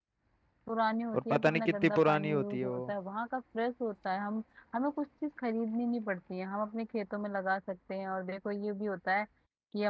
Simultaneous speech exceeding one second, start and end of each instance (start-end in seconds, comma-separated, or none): 1.1-2.8